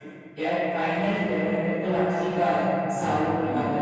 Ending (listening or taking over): taking over